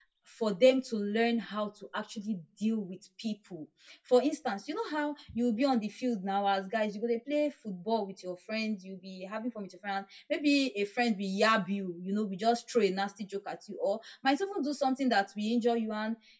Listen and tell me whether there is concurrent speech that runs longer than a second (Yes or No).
No